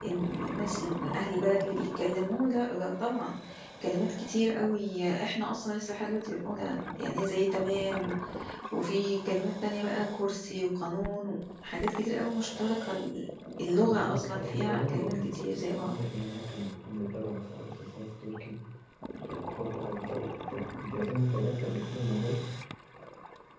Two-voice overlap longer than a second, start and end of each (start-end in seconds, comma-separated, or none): 13.8-15.9